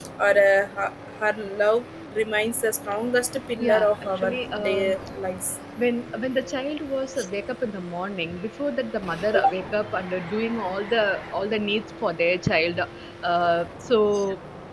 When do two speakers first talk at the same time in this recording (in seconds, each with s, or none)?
3.6 s